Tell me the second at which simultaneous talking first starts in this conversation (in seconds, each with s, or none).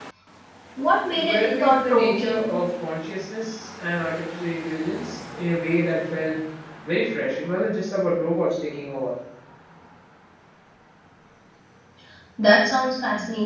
1.1 s